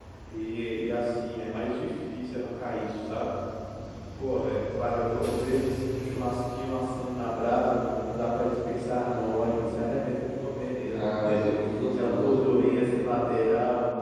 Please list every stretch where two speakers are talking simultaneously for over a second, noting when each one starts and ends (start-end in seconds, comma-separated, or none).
none